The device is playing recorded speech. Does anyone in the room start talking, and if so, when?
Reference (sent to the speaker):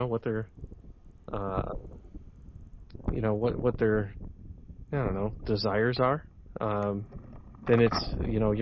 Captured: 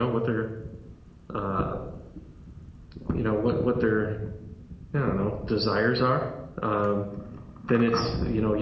none

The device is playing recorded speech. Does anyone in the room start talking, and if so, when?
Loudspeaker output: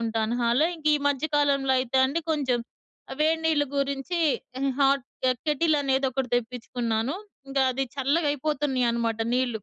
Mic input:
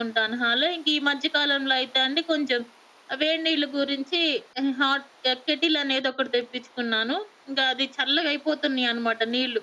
none

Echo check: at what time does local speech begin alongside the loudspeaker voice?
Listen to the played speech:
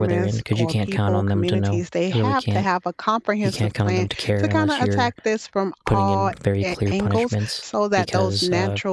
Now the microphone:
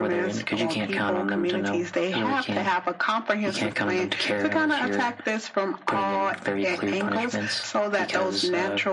none

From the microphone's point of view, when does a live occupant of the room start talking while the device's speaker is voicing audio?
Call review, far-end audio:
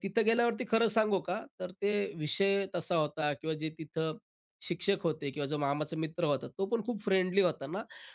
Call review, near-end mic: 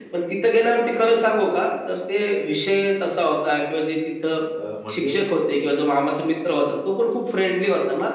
4.5 s

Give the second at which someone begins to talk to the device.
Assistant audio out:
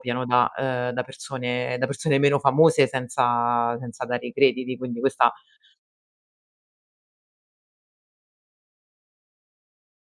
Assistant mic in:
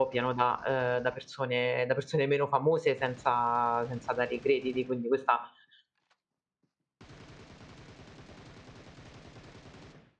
none

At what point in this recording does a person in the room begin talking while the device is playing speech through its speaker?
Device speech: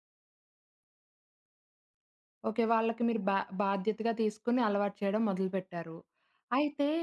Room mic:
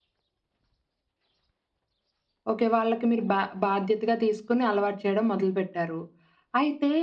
none

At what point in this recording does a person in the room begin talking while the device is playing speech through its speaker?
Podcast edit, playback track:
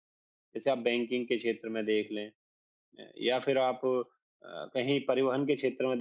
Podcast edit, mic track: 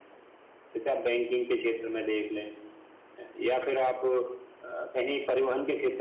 none

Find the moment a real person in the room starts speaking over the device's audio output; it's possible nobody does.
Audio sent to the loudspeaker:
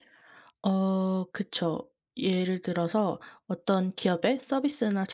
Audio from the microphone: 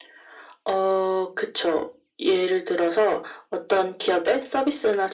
none

